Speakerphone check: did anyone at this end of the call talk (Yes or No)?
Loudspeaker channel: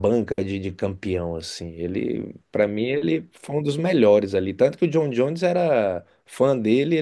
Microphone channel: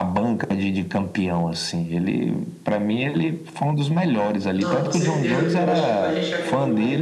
Yes